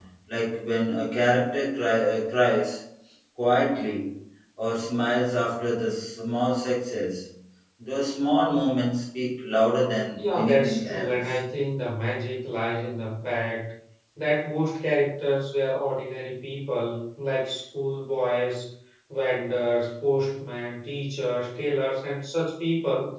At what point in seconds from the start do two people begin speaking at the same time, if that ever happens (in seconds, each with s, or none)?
10.2 s